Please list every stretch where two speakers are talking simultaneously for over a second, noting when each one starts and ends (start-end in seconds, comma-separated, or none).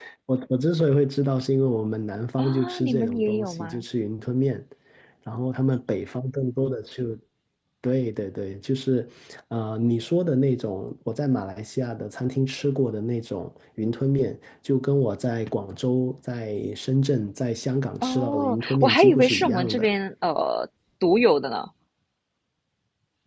2.4-3.8, 18.0-19.9